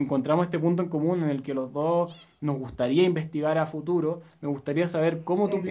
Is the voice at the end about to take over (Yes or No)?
No